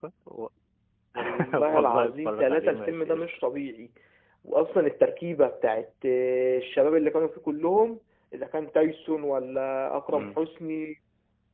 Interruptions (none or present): present